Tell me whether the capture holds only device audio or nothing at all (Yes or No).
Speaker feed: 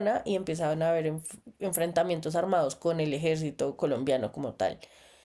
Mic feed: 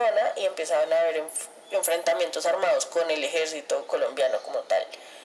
Yes